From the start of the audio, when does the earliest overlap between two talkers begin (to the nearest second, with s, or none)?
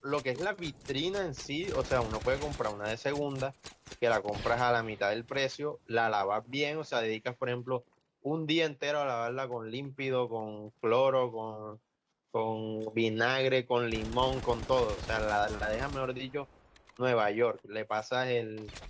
none